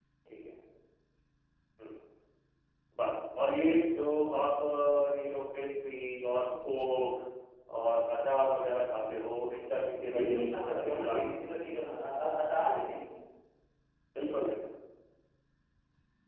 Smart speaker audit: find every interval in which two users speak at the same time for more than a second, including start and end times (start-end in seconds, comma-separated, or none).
10.1-11.3